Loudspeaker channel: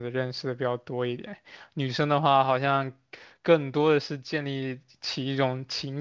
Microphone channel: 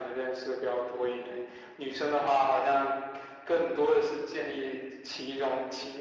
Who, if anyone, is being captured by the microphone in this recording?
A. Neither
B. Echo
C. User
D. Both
B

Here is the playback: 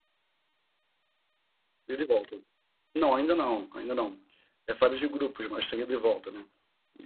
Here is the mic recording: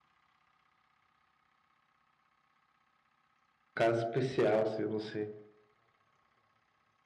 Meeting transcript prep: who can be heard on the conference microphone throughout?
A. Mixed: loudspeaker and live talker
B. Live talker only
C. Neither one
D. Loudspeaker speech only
B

